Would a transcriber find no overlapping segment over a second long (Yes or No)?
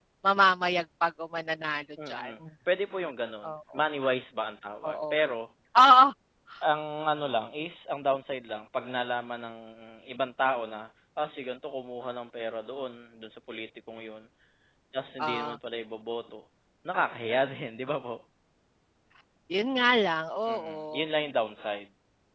Yes